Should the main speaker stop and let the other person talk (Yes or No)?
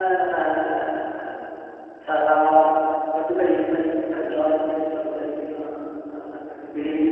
Yes